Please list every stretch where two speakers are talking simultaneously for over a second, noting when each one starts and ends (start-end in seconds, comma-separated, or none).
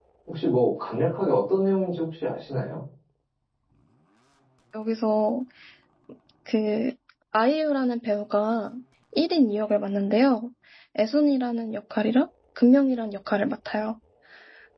none